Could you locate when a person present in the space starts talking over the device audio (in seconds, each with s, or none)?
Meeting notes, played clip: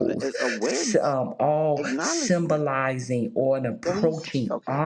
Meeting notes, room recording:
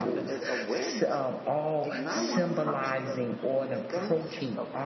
2.1 s